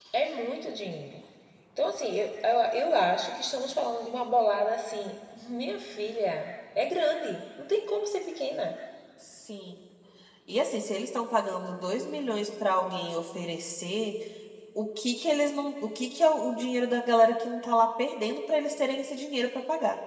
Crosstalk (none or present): none